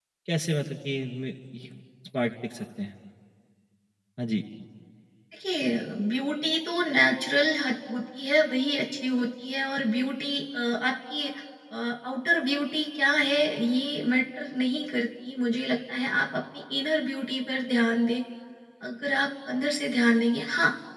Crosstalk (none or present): none